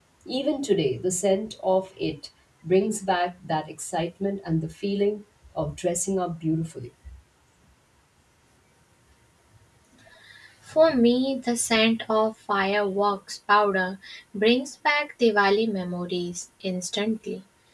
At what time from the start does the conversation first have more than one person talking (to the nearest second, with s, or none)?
none